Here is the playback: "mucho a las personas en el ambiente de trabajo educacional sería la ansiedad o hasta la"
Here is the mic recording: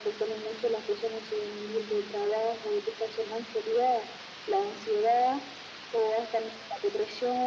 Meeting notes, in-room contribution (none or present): none